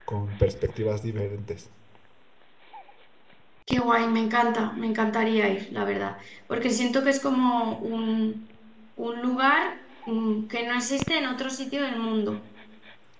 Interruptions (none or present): none